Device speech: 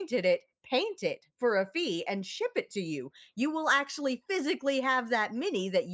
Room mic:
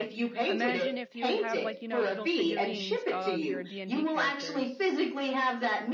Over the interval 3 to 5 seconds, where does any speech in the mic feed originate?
both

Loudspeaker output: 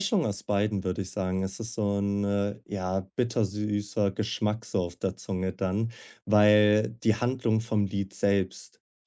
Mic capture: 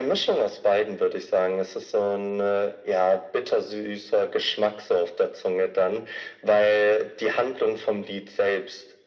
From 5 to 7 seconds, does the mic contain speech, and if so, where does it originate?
echo only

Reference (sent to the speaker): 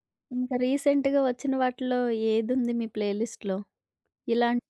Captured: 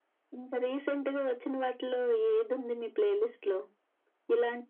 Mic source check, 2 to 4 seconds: echo only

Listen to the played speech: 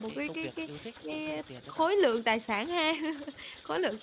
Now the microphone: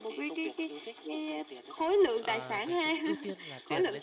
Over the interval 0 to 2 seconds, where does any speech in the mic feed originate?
echo only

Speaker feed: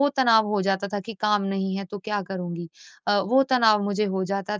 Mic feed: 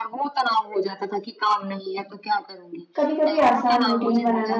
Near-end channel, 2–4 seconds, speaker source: both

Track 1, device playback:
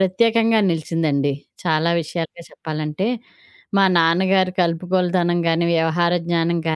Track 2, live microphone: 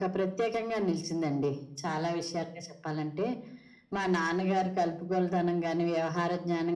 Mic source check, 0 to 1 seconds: echo only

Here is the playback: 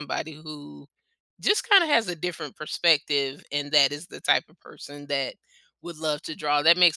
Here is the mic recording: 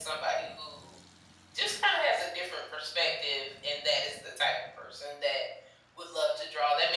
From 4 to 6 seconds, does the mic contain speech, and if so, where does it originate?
echo only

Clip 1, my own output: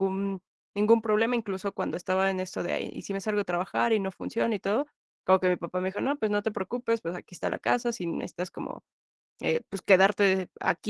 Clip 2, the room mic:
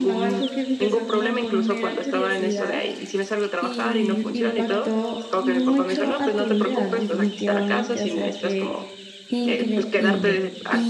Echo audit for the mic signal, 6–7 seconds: both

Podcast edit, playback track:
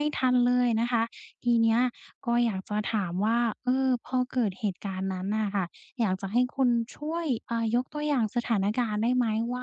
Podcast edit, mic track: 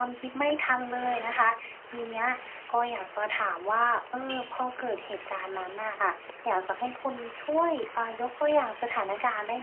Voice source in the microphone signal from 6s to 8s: echo only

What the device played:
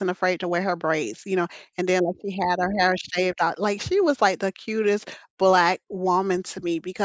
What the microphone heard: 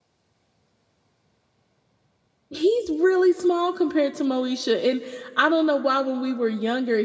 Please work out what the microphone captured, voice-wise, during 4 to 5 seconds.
user only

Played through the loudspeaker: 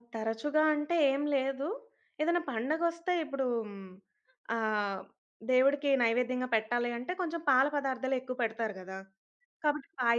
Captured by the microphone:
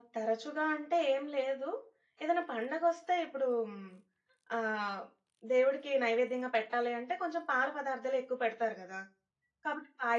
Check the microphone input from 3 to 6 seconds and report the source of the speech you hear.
echo only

